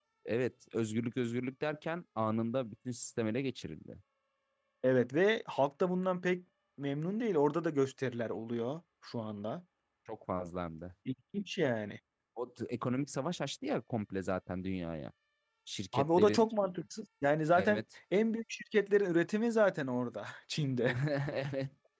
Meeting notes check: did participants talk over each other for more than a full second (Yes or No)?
No